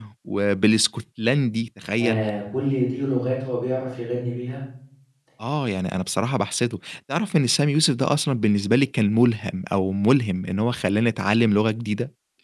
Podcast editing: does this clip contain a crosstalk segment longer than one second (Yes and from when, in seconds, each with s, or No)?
No